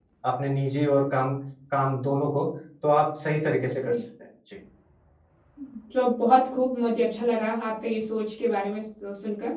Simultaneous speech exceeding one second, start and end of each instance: none

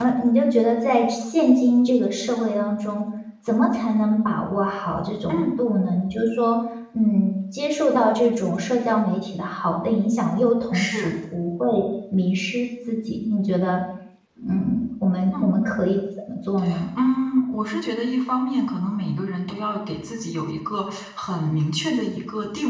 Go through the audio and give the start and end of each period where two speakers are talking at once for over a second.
none

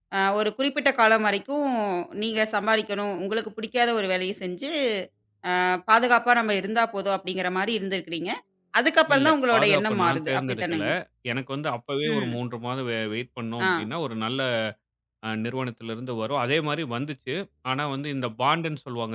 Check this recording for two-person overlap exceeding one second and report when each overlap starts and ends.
9.1-10.8

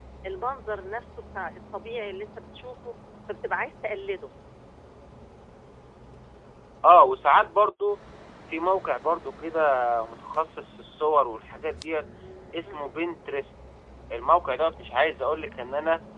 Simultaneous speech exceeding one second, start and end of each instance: none

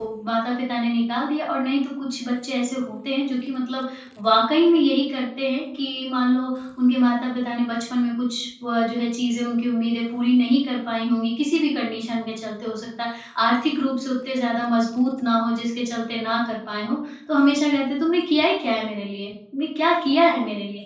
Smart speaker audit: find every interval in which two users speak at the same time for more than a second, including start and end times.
none

